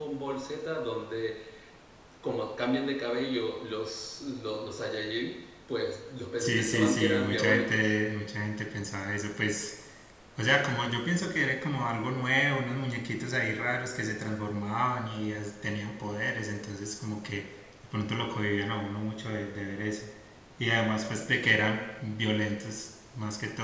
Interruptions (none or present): present